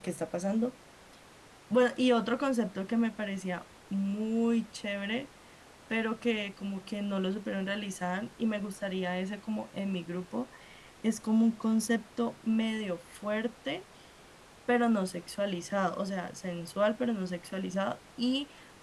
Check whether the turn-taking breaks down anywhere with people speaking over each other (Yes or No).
No